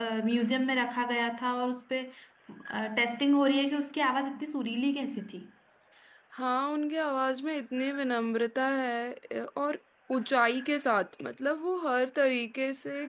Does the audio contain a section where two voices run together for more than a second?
No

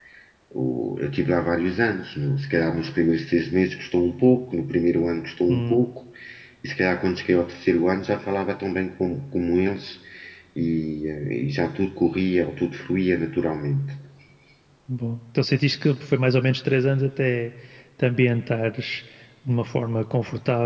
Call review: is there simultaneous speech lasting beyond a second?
No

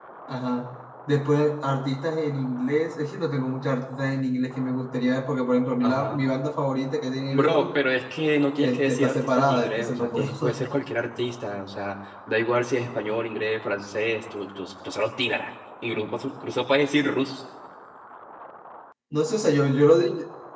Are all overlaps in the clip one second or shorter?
No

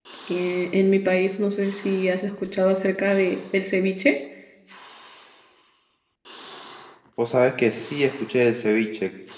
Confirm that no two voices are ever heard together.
Yes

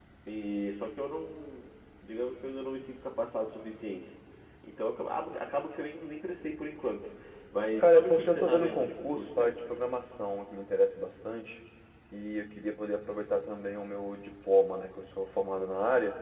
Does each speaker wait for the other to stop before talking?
No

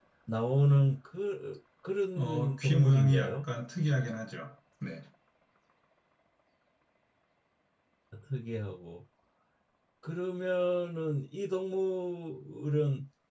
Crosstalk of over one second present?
Yes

